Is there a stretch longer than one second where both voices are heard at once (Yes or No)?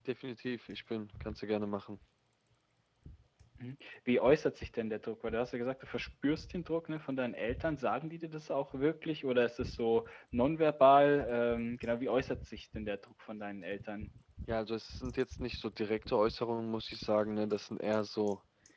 No